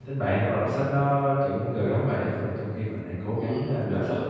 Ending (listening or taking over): taking over